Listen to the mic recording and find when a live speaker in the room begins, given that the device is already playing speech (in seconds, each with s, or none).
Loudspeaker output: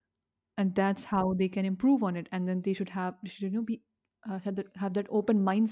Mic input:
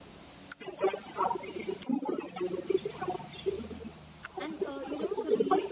4.4 s